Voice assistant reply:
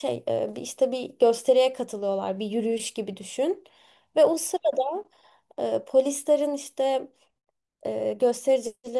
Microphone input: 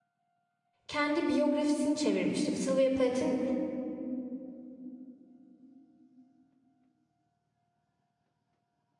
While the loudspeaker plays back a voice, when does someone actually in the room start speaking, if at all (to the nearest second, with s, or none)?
1 s